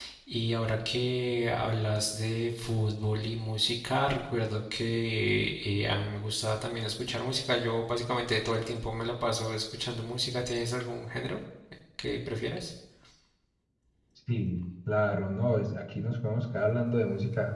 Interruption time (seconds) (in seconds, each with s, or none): none